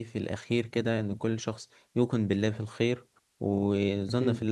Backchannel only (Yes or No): Yes